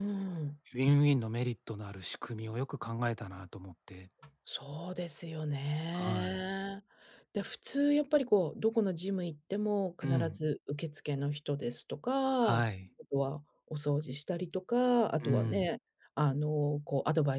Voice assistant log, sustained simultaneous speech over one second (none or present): none